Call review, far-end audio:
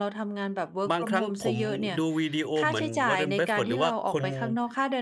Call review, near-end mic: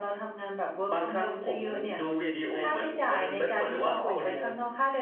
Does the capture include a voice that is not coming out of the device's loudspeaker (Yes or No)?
Yes